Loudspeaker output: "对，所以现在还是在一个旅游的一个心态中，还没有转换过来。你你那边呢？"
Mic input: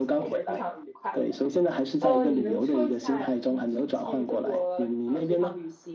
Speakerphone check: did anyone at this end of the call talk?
Yes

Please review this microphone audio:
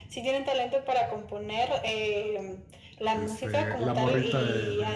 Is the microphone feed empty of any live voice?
No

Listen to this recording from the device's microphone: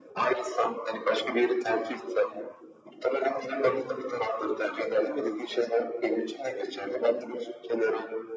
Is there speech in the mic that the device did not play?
No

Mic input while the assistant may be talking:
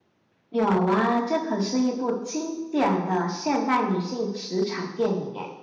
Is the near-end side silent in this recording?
No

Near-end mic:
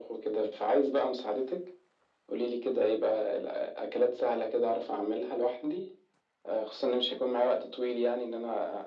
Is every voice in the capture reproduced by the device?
Yes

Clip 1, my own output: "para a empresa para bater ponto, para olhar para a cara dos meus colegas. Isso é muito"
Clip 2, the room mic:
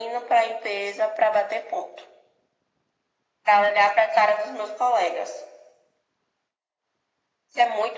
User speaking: No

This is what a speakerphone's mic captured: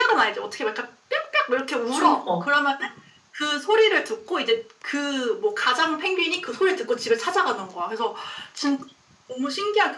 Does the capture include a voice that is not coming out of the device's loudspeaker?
Yes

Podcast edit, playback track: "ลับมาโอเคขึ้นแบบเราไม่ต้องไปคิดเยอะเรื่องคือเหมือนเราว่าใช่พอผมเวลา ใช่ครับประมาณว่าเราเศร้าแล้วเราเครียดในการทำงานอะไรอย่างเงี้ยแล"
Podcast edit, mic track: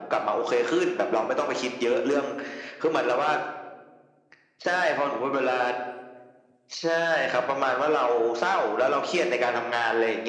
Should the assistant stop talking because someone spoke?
No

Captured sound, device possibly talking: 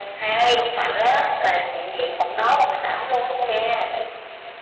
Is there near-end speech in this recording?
No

